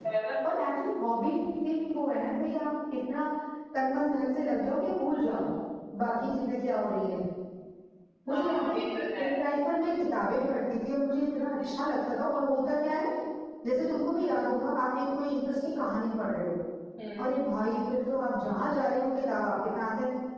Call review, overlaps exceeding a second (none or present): none